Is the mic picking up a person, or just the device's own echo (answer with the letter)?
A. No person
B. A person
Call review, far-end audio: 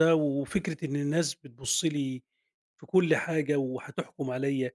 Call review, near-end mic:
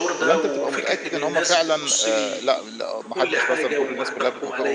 B